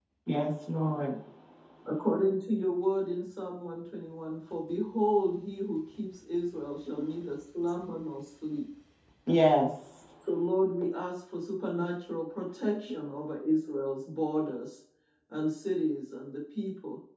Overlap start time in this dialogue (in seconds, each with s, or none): none